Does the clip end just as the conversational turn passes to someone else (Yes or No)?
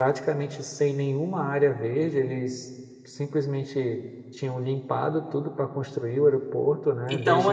Yes